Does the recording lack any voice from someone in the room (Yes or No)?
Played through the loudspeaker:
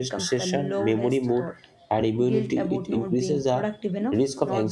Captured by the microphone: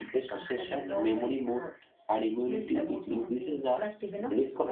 Yes